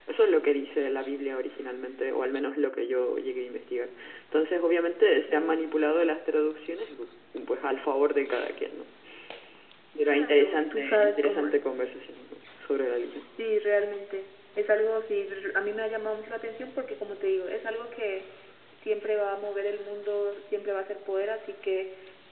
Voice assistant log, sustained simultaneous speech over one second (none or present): present